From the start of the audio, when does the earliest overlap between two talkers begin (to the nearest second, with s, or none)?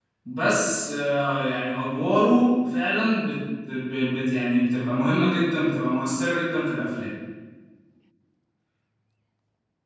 none